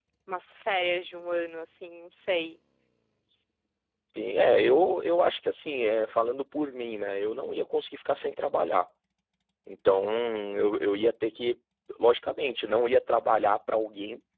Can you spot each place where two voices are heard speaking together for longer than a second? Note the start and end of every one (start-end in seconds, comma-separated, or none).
none